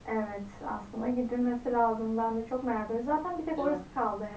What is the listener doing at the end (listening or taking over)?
listening